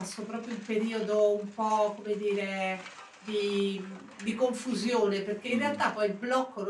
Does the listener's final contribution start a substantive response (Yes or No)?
No